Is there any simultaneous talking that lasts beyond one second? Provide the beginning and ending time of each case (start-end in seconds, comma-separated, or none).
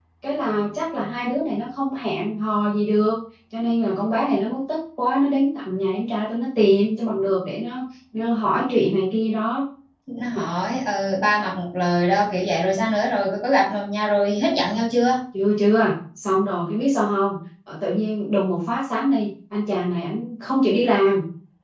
none